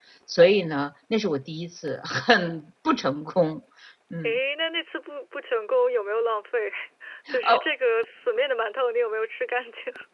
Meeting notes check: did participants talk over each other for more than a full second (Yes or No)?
No